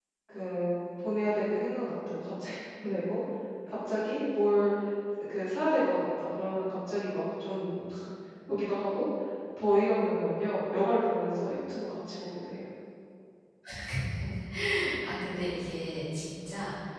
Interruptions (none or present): none